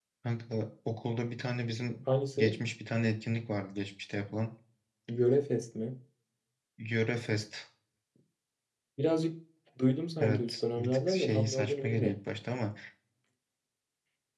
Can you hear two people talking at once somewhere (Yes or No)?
Yes